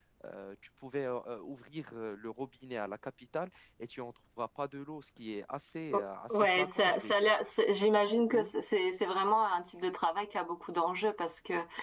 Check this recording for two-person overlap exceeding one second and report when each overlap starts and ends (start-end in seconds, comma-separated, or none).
5.9-7.3